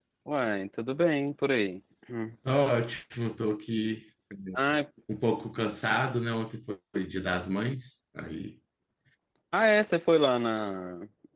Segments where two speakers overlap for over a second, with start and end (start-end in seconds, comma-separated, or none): none